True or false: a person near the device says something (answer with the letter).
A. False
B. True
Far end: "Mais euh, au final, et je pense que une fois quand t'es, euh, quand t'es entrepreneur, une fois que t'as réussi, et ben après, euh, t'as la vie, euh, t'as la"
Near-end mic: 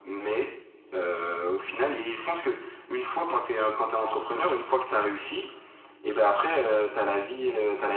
A